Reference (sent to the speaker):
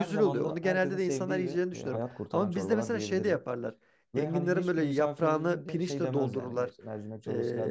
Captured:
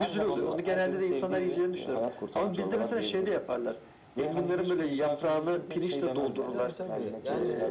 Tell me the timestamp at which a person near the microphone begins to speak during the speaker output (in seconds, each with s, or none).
6.5 s